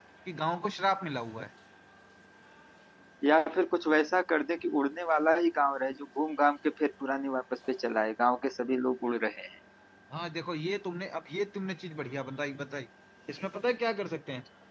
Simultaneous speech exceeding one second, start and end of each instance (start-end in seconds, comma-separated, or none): none